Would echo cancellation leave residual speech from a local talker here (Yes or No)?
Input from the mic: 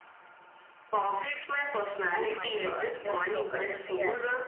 Yes